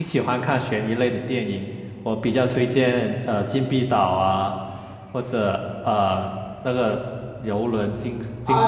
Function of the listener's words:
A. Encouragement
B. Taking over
B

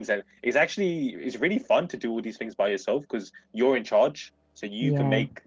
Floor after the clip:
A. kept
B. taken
A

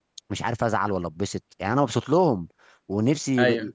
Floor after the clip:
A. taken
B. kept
B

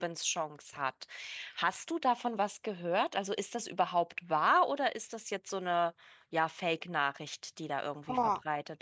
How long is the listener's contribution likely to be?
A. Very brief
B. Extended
B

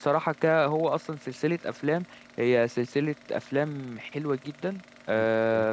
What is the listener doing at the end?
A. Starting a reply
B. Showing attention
B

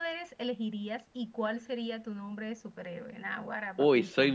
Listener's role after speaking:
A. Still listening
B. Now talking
B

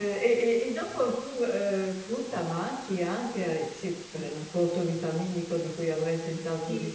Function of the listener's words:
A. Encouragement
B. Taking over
B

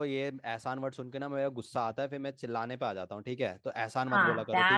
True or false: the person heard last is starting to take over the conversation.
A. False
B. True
B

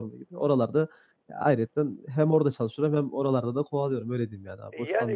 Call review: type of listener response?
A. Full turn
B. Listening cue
A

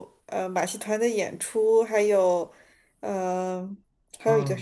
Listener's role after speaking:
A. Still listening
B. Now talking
A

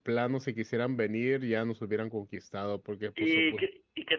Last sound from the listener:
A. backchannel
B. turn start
B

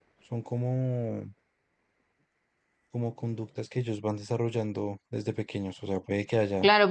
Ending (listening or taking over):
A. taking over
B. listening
A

